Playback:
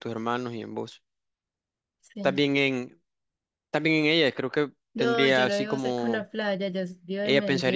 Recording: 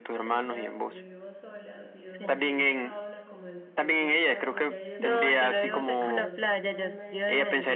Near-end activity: present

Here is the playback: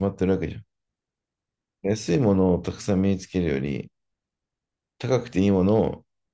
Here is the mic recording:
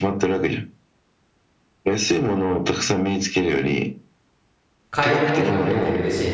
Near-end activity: present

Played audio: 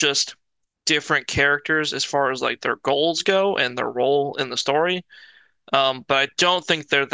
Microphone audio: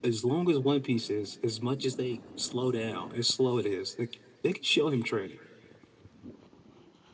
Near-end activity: present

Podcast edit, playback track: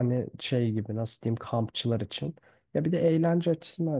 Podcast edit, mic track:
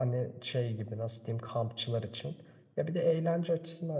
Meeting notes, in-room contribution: none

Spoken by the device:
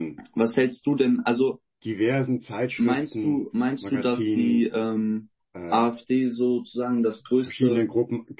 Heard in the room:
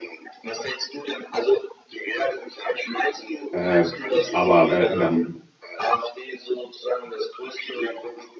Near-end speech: present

